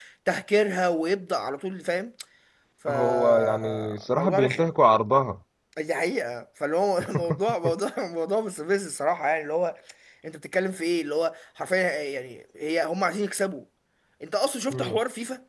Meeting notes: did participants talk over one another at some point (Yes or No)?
Yes